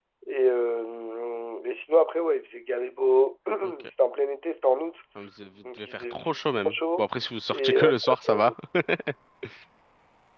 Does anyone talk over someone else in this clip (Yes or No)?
Yes